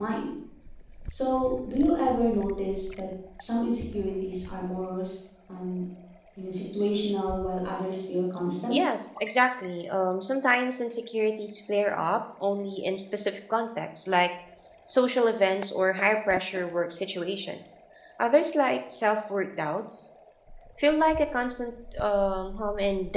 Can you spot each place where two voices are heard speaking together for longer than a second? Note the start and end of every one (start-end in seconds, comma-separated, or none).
none